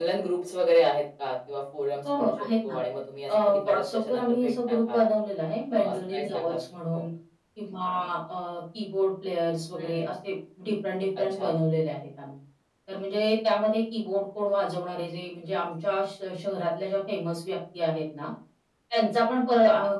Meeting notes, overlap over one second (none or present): present